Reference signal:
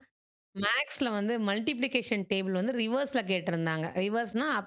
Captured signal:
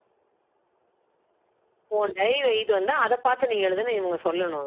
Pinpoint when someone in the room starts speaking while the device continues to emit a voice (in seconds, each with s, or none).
2.0 s